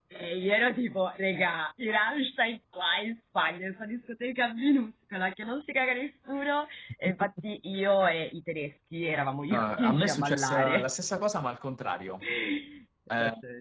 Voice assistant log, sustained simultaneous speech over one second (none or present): present